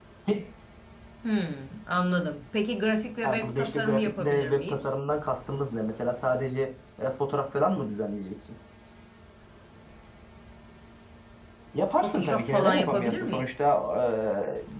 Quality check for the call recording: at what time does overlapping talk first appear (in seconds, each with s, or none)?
3.2 s